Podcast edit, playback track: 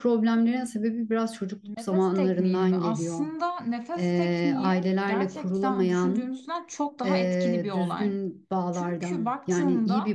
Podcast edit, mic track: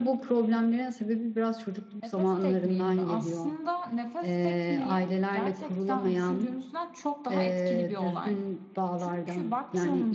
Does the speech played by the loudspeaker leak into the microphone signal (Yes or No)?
Yes